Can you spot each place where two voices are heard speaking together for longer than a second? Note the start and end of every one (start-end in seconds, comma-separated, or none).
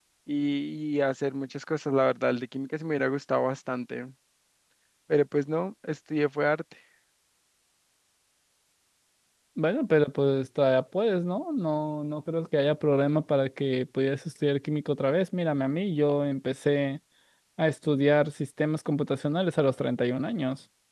none